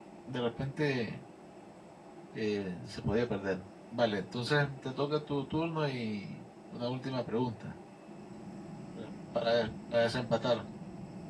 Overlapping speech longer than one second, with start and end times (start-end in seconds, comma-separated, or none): none